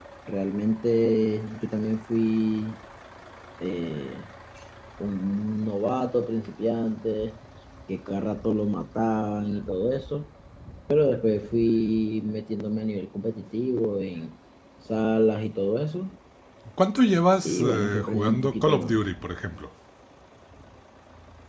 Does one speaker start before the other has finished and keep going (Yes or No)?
Yes